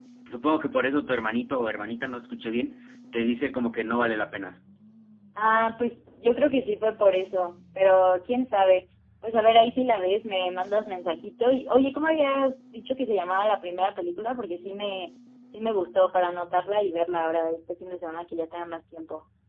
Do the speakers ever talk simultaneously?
No

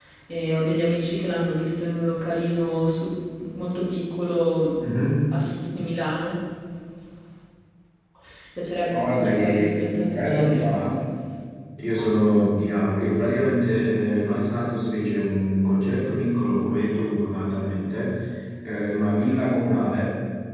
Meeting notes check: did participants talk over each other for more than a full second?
Yes, from 8.9 s

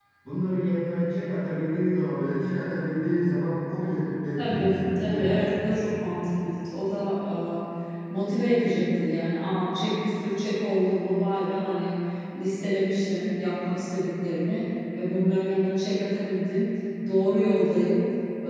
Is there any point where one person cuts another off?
Yes, from 4.4 s

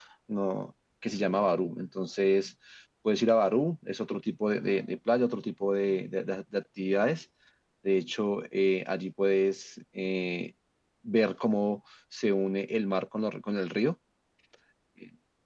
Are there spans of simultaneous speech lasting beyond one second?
No

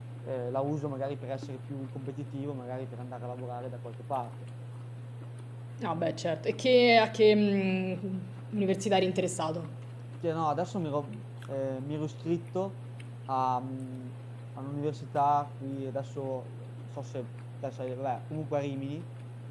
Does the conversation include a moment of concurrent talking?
No

